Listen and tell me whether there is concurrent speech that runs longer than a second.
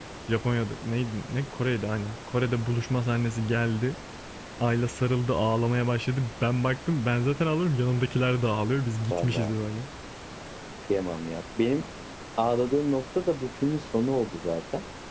No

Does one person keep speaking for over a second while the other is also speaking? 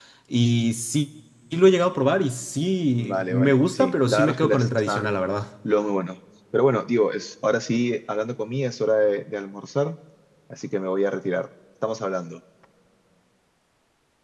Yes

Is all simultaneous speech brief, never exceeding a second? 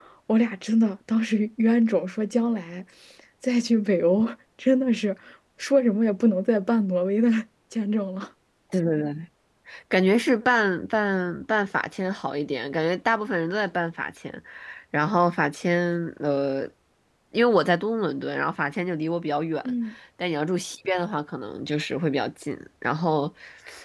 Yes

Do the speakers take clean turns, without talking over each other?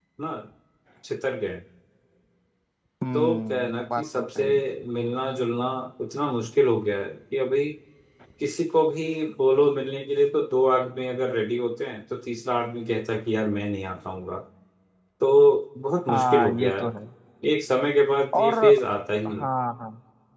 No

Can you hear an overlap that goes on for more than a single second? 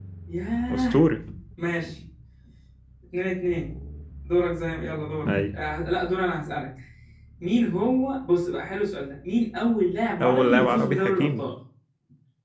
Yes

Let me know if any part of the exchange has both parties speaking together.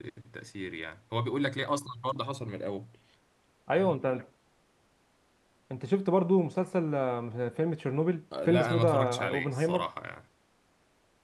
Yes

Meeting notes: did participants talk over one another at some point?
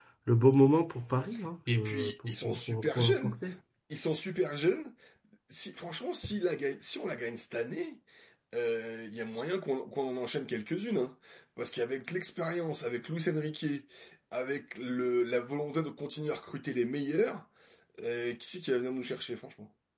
Yes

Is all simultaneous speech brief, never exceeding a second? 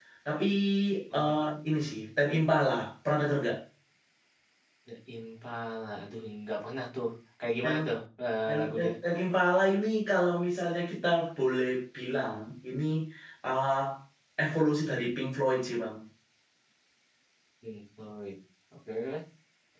Yes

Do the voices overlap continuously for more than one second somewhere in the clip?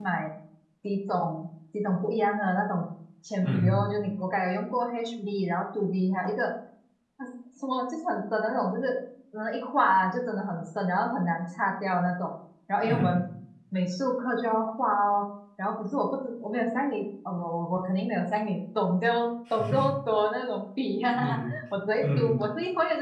No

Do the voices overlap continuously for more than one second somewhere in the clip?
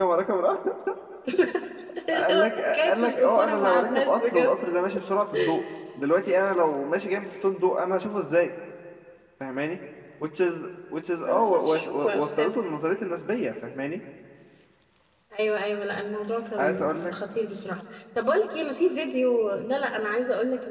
Yes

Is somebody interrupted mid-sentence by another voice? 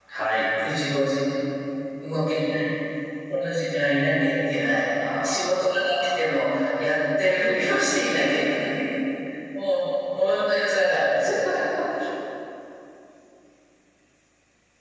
Yes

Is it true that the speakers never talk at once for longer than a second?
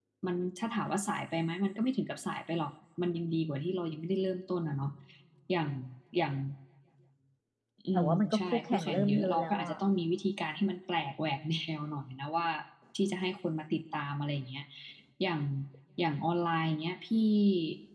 No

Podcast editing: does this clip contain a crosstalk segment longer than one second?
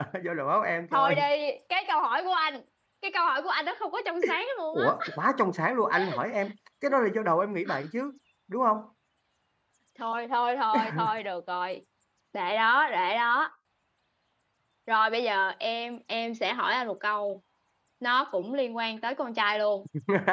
No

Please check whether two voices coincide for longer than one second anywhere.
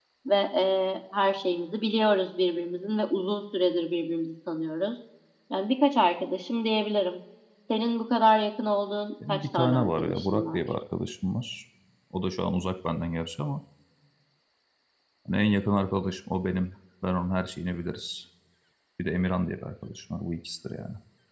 Yes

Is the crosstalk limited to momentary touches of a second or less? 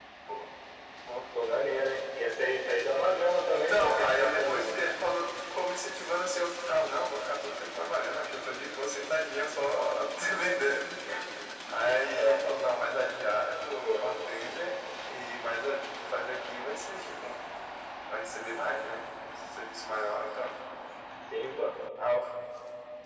No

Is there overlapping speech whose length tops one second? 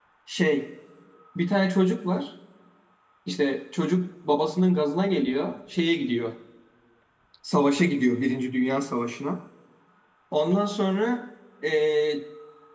No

